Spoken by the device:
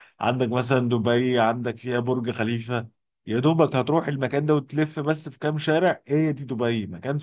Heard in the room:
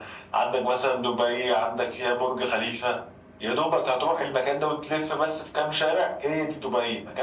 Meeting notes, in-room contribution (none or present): none